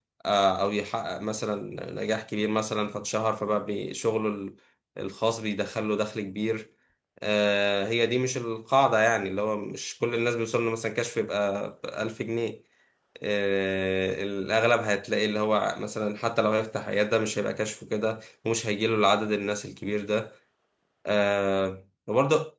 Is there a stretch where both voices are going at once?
No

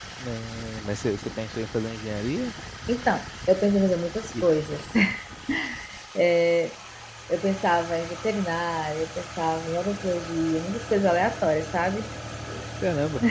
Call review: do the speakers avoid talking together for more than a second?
Yes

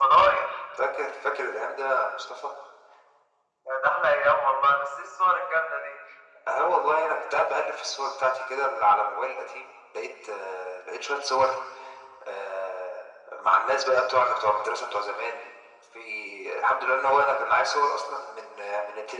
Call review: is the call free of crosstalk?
Yes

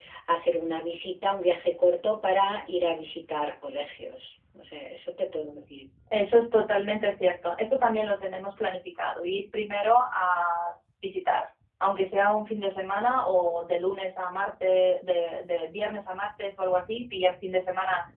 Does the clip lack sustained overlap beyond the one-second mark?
Yes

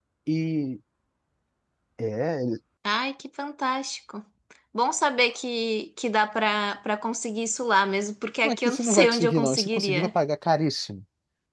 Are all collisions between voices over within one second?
No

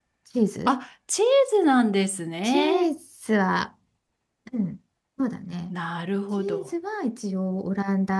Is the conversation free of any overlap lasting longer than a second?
Yes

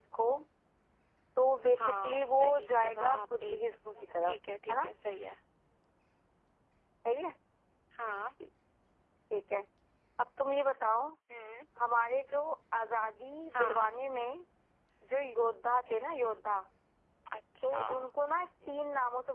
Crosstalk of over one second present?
Yes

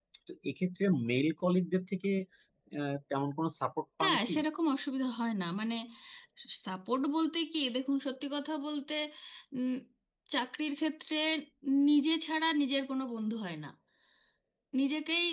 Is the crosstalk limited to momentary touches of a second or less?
Yes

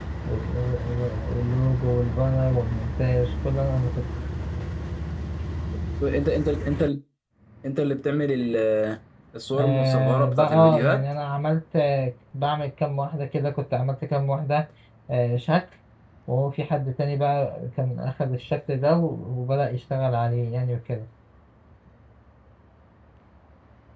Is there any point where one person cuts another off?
Yes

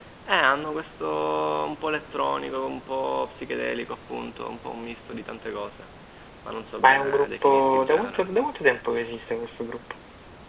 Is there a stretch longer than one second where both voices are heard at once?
Yes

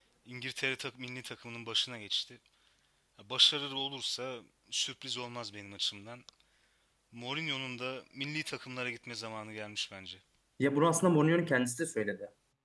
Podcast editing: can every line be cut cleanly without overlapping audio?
Yes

